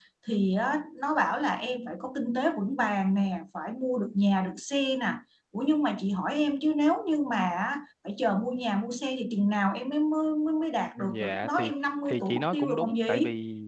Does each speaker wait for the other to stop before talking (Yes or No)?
No